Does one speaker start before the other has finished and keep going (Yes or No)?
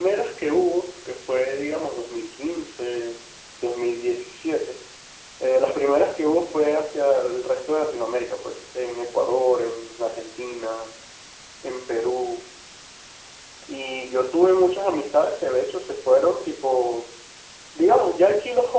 No